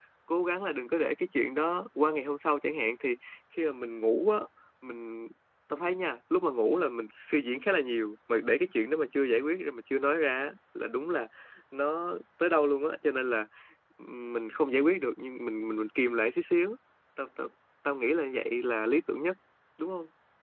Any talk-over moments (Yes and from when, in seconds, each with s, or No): No